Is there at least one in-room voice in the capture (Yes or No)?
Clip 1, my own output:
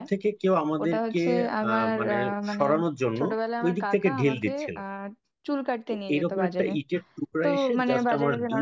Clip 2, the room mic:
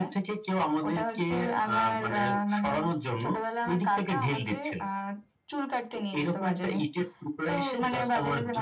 No